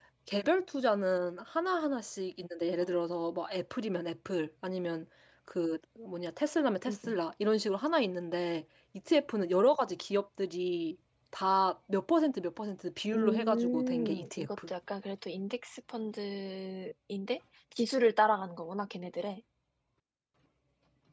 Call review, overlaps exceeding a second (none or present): present